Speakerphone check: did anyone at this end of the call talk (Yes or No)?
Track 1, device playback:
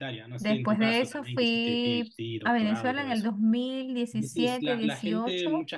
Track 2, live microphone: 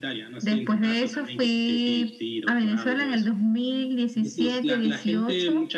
No